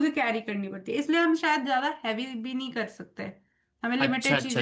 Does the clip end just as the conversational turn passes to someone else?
Yes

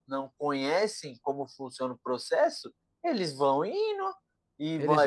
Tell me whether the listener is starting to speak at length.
No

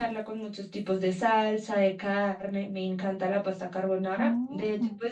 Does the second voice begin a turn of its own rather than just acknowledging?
No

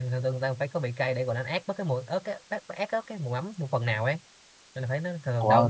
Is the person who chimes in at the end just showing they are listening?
Yes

